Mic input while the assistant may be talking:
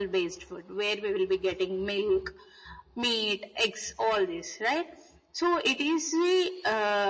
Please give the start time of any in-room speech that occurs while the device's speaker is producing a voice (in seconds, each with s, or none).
none